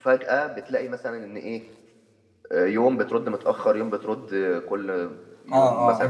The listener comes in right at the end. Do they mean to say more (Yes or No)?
Yes